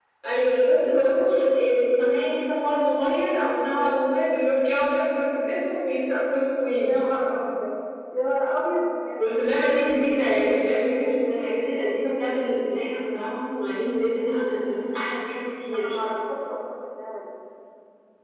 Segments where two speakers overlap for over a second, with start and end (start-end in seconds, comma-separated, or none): none